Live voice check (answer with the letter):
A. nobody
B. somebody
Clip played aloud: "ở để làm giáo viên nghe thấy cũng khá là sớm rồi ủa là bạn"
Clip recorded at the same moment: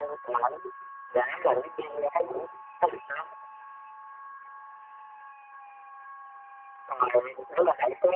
A